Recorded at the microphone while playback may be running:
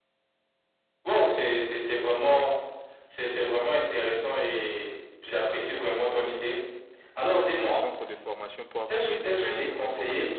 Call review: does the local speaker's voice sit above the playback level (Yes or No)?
No